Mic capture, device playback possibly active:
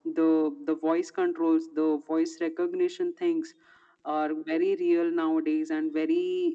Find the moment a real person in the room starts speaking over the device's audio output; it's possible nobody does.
none

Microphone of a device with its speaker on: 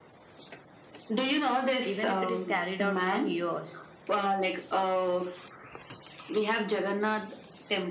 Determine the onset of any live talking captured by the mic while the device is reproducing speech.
1.8 s

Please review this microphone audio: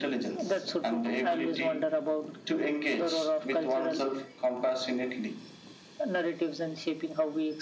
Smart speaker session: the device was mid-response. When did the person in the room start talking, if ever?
none

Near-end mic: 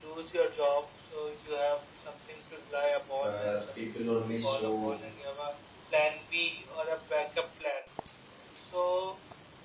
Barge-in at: 3.2 s

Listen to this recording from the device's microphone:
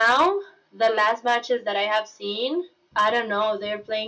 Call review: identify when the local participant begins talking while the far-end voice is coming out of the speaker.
none

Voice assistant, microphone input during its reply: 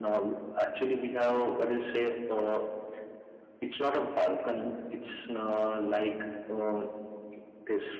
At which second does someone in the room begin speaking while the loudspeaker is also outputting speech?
none

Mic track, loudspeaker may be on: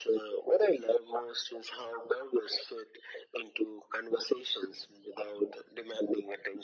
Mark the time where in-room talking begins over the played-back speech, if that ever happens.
none

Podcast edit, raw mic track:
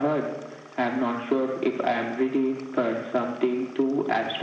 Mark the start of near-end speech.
none

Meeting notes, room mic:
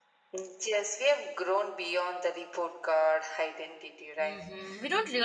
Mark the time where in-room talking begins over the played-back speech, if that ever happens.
4.2 s

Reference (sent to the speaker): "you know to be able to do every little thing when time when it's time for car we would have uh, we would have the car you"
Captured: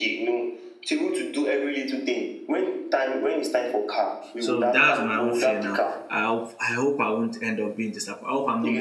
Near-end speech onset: 4.4 s

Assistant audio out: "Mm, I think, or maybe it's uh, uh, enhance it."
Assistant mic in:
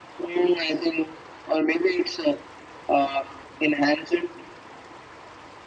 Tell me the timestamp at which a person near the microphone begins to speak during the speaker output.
none

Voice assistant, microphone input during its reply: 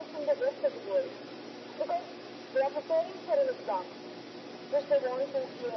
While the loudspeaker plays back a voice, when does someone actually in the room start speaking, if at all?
none

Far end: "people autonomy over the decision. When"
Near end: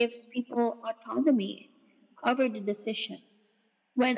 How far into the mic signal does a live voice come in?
none

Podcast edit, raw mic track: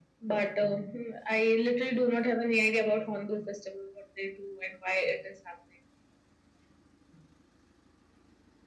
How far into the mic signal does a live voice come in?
none

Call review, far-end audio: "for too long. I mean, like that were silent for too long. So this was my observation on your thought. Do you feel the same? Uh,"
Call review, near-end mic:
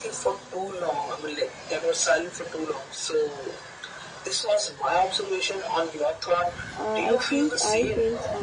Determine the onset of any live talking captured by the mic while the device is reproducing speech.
6.7 s

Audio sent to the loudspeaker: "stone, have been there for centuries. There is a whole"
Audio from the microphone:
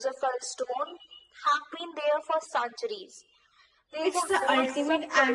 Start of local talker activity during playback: 4.0 s

